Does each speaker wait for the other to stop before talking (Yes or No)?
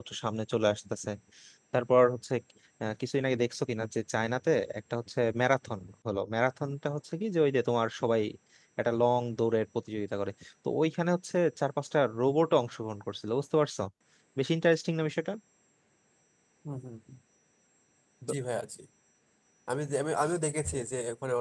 Yes